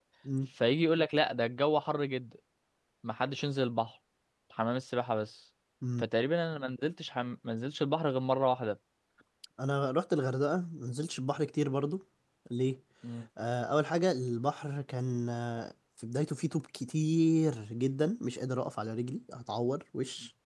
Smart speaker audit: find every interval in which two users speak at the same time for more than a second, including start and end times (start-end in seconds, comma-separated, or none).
none